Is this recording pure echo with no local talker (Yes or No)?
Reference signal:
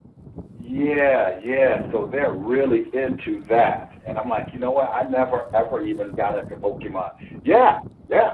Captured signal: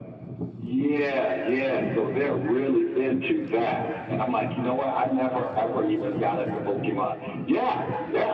Yes